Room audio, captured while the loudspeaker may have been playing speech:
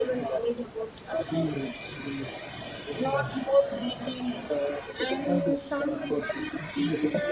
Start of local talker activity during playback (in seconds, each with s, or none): none